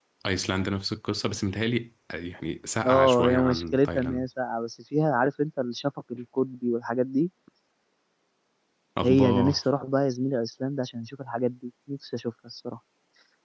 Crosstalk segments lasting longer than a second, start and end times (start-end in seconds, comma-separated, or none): 2.9-4.3